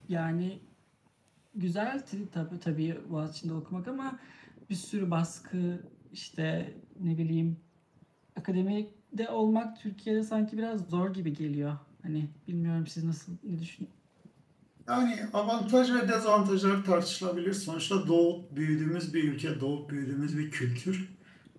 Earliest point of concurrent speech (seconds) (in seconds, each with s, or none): none